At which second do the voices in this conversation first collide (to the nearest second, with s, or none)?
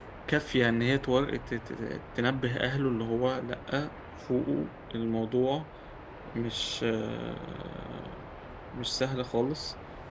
none